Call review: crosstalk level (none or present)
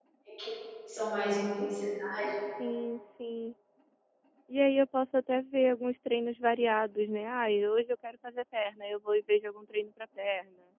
none